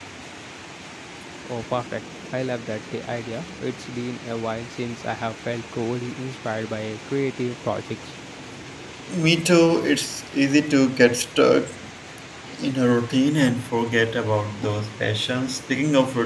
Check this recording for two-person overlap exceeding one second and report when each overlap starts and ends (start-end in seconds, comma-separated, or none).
none